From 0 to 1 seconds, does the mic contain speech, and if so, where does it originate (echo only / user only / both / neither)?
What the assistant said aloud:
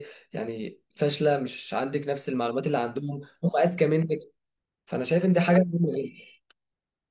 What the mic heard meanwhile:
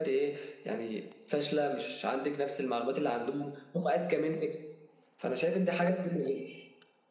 echo only